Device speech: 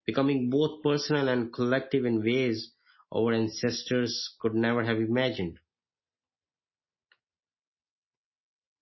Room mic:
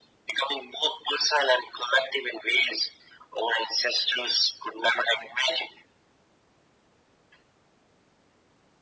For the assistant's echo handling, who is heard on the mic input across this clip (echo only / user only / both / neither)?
echo only